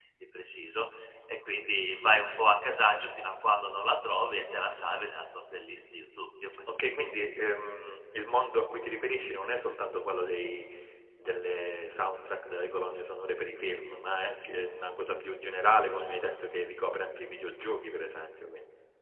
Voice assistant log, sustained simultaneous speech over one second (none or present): none